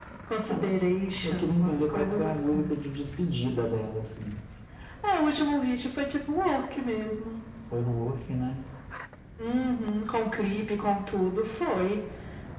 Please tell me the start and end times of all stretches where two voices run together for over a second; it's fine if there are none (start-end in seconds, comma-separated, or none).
1.2-2.7